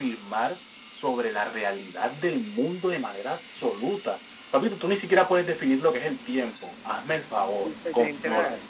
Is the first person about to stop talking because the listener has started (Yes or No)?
Yes